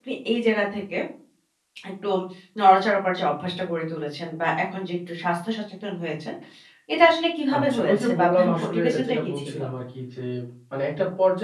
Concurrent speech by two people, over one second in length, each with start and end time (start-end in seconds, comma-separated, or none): 7.5-9.6